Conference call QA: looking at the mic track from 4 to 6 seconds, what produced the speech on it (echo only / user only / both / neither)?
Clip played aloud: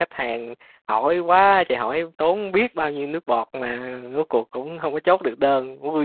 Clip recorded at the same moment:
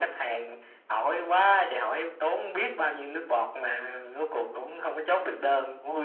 echo only